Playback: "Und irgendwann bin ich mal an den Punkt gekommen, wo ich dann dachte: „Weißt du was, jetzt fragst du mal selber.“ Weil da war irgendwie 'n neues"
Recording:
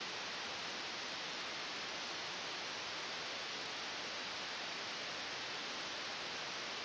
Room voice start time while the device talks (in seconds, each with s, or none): none